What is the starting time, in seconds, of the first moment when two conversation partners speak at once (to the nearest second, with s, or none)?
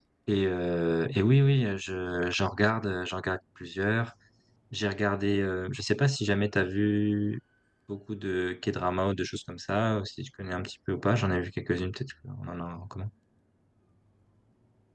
none